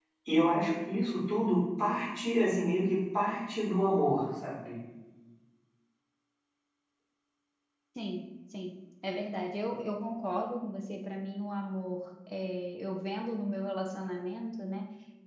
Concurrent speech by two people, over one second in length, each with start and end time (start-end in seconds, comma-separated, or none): none